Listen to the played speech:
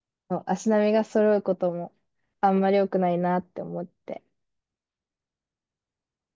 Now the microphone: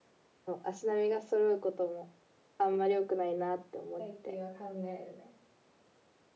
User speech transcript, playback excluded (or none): 最近は考えるね。